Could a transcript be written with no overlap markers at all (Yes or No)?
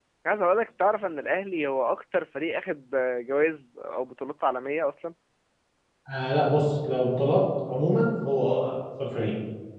Yes